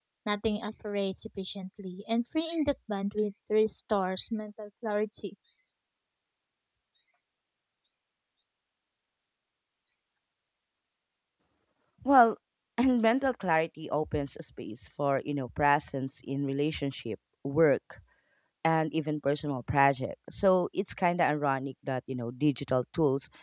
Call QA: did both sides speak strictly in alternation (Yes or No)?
Yes